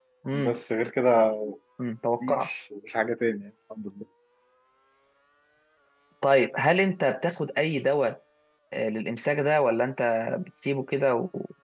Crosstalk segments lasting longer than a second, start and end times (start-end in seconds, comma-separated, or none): none